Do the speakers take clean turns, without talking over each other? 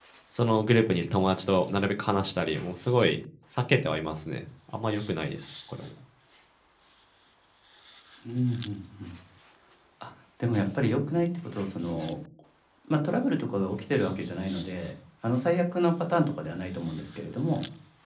Yes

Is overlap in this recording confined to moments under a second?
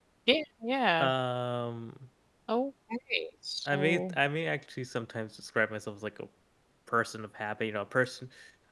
Yes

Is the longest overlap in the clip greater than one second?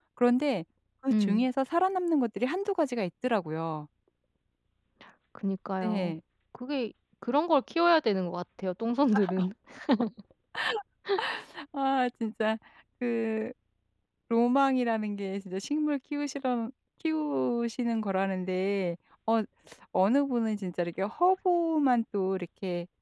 No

